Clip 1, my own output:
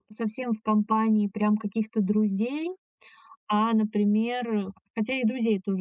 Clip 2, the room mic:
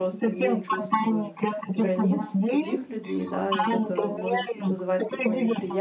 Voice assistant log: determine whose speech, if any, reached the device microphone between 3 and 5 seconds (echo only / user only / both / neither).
both